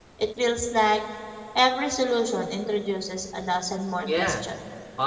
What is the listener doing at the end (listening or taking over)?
taking over